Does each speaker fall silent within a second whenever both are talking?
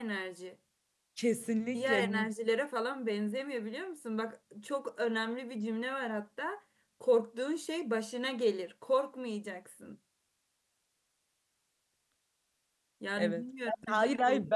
No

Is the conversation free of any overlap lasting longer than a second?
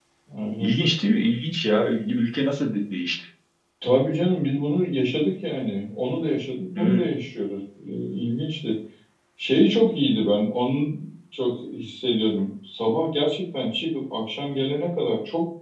Yes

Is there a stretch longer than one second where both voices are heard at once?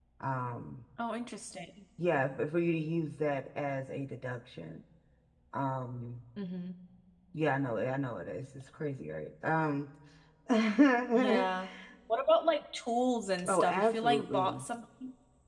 Yes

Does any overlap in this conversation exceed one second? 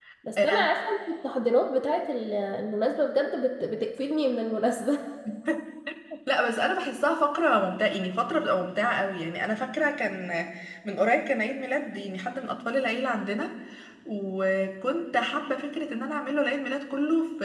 No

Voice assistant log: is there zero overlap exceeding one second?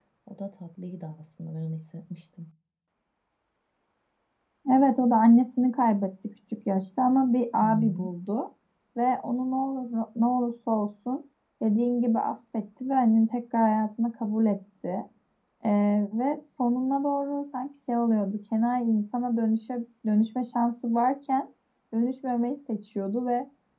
Yes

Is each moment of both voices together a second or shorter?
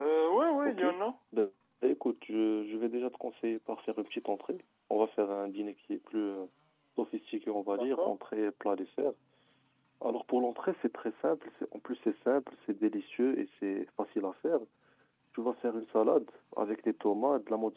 Yes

